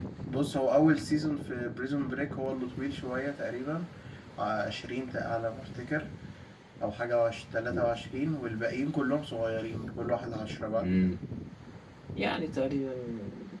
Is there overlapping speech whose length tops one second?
No

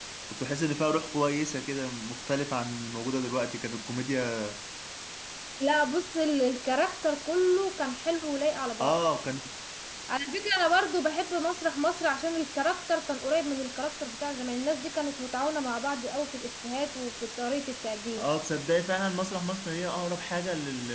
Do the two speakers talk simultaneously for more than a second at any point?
No

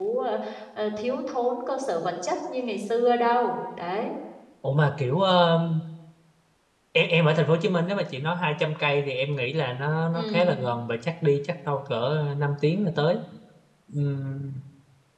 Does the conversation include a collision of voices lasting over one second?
No

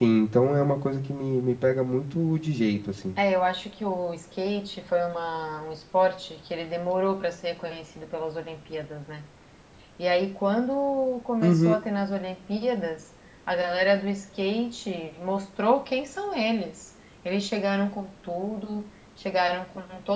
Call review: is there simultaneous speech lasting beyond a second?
No

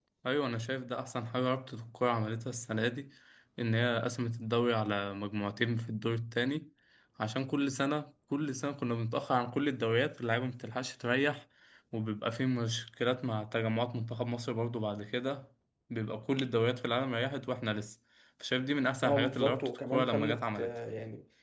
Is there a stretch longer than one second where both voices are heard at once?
Yes, from 19.0 s

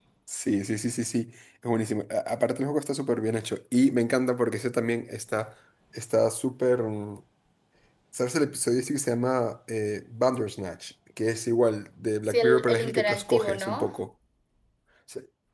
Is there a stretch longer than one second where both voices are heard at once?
Yes, from 12.2 s

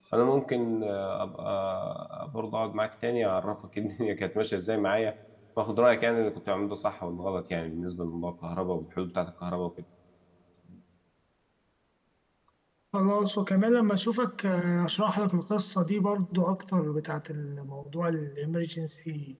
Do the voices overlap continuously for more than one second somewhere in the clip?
No

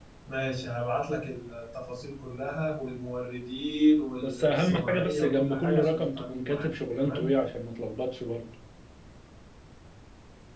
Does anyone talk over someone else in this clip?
Yes, from 4.2 s

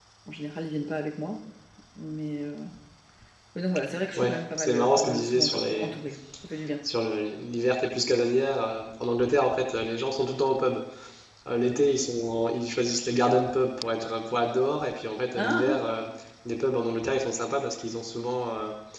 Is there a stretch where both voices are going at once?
Yes, from 4.2 s

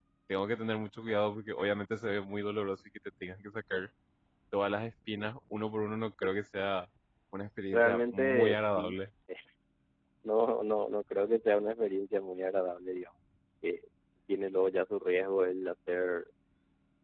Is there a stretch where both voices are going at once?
Yes, from 7.7 s

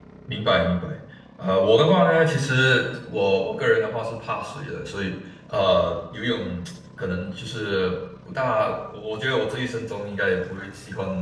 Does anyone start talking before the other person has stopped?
No

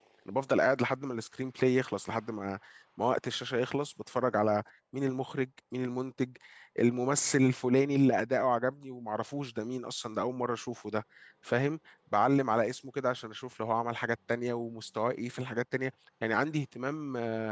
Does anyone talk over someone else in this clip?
No

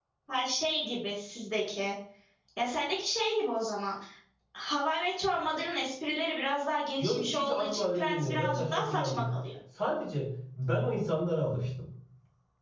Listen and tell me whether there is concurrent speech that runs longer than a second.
Yes, from 7.0 s

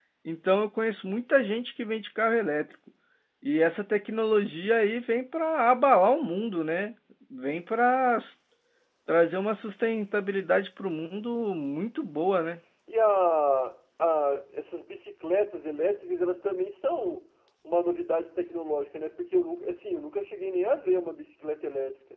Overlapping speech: No

